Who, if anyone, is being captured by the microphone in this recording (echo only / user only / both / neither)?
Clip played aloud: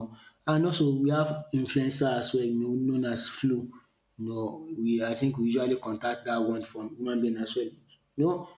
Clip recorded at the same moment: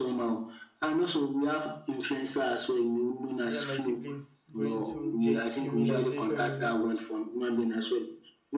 both